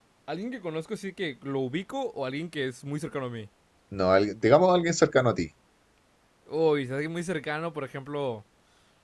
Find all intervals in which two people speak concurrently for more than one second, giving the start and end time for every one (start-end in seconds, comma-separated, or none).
none